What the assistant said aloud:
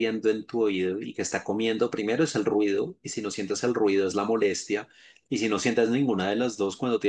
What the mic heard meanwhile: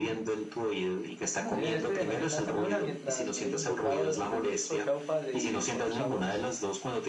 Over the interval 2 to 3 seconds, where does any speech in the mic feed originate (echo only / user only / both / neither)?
both